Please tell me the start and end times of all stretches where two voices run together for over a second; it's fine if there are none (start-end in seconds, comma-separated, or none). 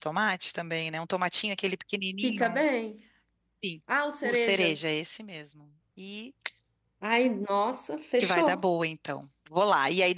none